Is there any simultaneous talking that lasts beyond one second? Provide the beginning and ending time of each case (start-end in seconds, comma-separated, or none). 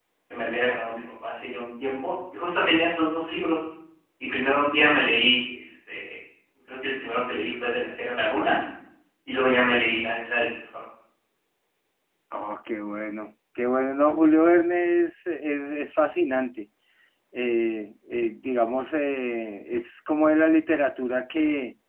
none